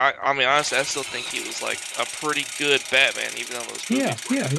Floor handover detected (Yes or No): Yes